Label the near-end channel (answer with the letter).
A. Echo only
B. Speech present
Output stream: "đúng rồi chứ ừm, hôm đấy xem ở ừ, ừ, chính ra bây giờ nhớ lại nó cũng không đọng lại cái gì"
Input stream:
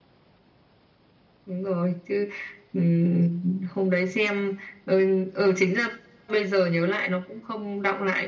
A